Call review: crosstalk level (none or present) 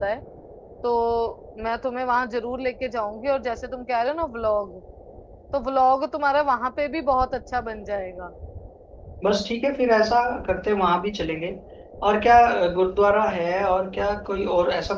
none